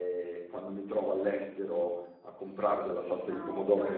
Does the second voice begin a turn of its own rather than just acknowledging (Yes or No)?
No